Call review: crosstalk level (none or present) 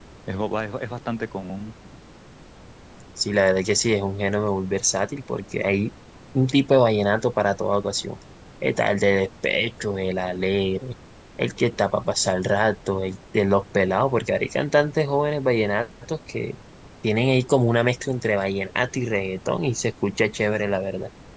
none